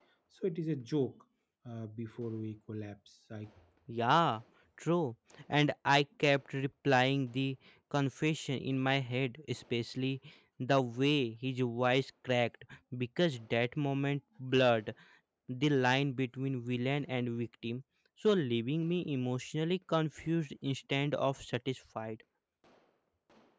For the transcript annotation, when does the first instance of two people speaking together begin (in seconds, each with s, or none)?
none